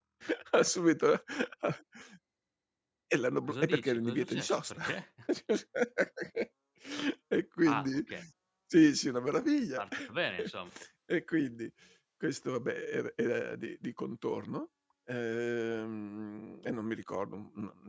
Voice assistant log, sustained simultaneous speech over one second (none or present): present